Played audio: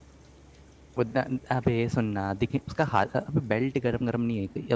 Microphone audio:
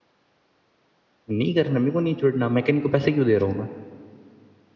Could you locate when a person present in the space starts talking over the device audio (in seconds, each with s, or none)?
1.3 s